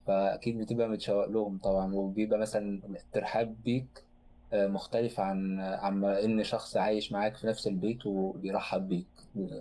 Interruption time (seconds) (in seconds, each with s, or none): none